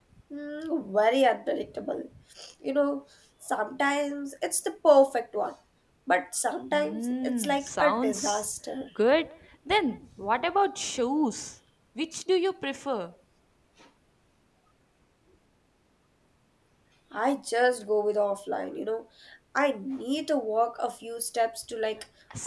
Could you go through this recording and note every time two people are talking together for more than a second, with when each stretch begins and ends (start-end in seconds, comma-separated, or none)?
6.7-8.5